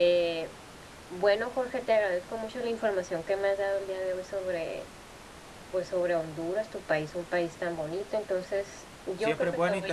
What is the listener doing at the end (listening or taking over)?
taking over